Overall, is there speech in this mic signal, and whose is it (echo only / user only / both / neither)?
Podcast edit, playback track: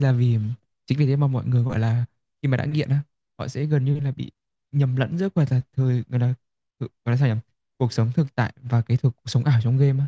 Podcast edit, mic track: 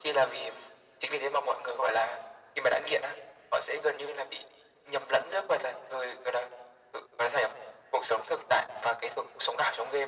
echo only